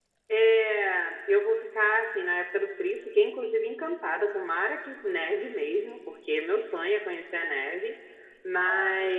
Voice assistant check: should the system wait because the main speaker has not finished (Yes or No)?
Yes